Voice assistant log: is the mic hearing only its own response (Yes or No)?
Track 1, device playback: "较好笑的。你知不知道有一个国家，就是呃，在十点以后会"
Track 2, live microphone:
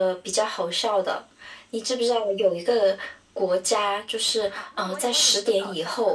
No